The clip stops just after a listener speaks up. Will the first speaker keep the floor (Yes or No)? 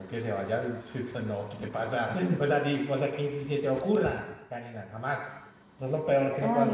Yes